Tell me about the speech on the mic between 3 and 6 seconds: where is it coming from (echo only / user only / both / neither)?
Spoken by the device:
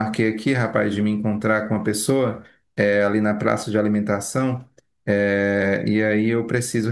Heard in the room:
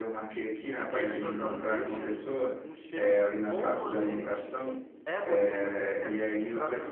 both